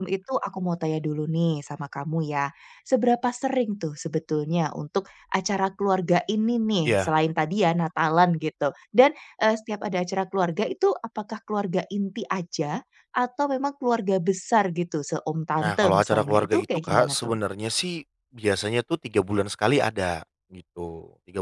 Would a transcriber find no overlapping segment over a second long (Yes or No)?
No